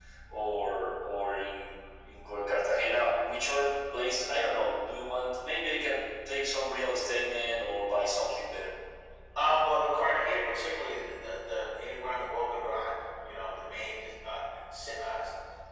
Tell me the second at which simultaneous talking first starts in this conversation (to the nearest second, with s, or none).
none